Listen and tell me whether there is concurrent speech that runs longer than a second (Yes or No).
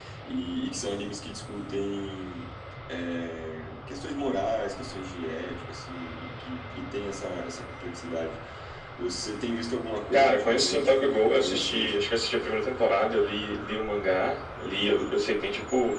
Yes